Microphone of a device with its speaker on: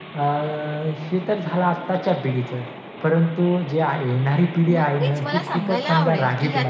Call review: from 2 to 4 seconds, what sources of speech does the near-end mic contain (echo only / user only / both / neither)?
echo only